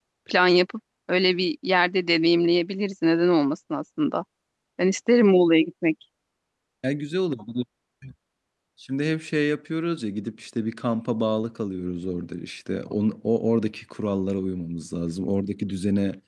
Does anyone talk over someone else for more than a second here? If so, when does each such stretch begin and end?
none

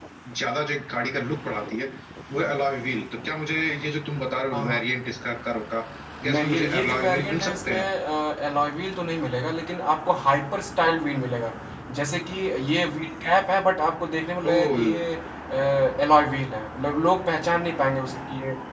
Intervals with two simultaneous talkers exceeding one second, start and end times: 6.2-7.8

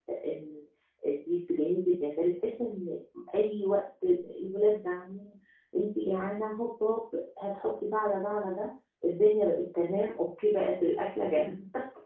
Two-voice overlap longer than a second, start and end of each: none

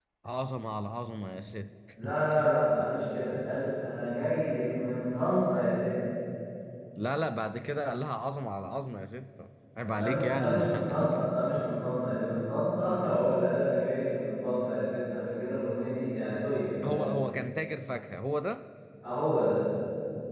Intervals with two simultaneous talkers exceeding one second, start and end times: 9.8-11.1

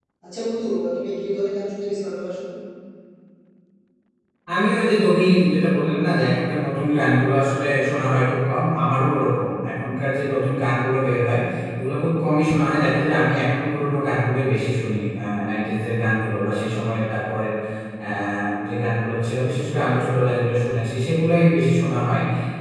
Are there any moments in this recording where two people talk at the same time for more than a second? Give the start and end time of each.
none

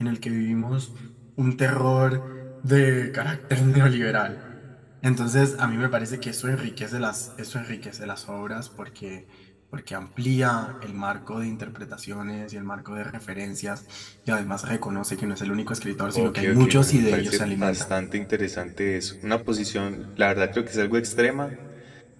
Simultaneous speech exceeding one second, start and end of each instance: 16.1-17.9

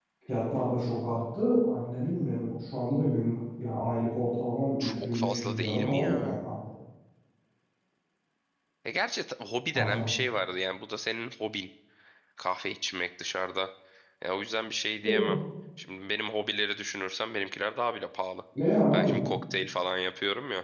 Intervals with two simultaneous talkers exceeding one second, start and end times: 4.8-6.5

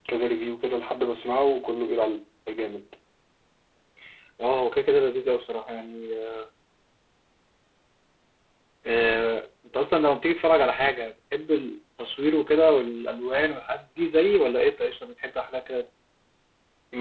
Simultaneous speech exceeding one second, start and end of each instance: none

